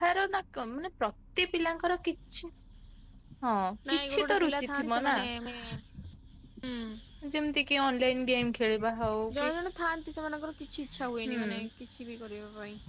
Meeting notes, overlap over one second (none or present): present